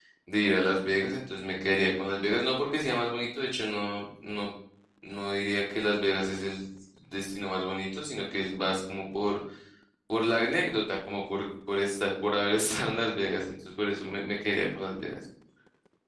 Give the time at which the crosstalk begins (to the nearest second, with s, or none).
none